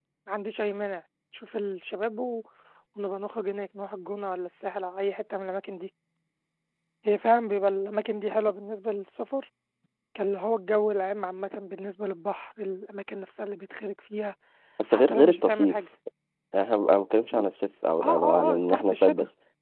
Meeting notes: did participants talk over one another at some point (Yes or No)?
Yes